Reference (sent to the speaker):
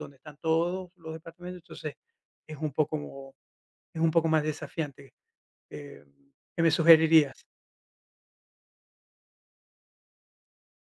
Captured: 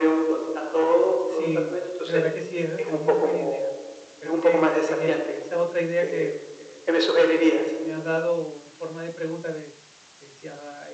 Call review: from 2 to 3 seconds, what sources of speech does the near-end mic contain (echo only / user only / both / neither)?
both